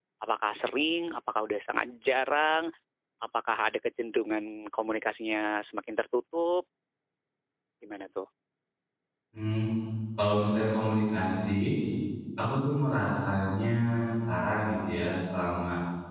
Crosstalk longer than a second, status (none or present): none